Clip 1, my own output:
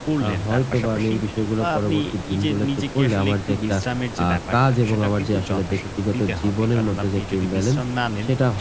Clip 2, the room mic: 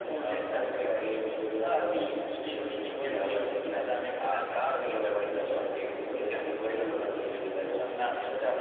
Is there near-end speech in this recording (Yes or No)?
Yes